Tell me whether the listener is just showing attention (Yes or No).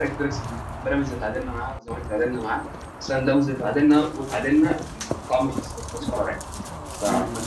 No